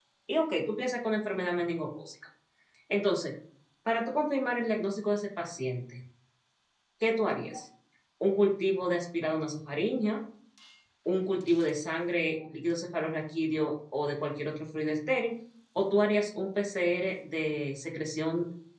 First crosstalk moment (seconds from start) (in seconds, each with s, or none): none